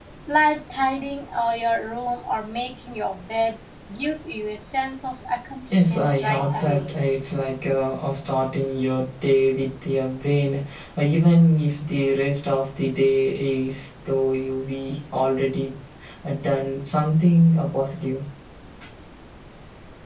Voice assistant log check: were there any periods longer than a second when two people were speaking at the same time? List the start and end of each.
5.7-6.9

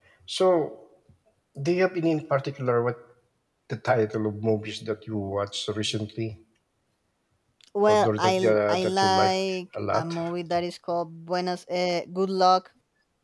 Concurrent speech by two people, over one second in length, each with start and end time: 7.9-9.3

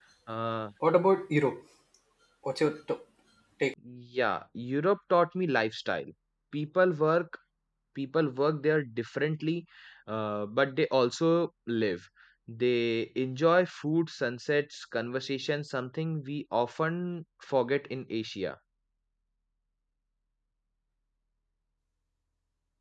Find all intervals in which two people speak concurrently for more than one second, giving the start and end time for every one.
none

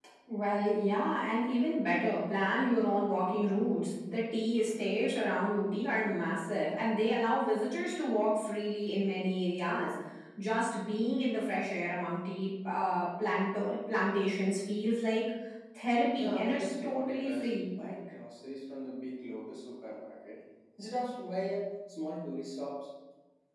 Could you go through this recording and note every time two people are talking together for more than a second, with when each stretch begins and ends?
16.2-17.7

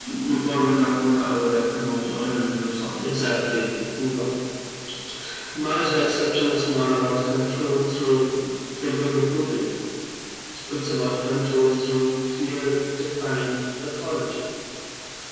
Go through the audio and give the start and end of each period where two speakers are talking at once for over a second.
none

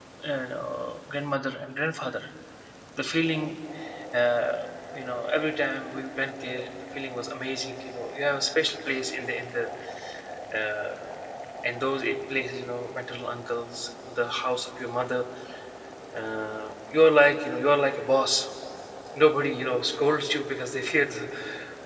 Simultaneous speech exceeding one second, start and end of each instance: none

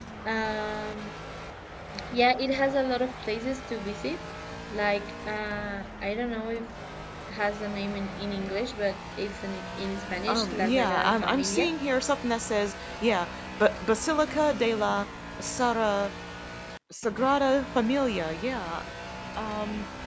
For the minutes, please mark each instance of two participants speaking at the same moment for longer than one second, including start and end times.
10.3-11.7

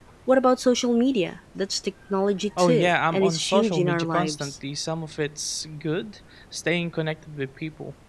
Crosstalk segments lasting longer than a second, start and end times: 2.6-4.5

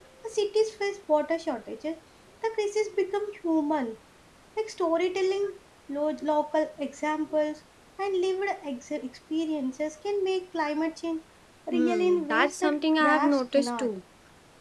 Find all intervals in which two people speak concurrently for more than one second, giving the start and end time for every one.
11.7-13.9

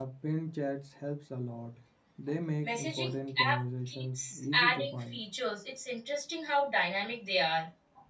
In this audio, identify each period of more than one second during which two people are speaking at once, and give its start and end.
2.6-5.2

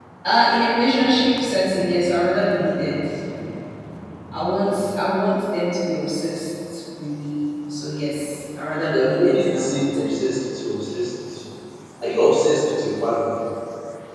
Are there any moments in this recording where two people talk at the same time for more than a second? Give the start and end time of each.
8.9-10.1

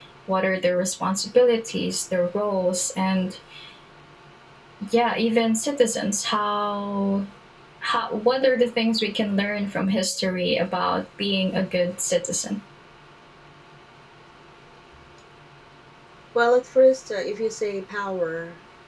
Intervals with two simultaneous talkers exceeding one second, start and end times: none

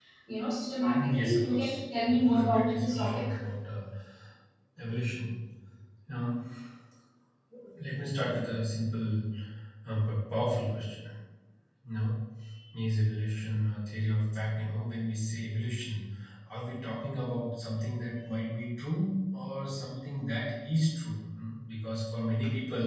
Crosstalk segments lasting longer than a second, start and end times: 1.0-3.3

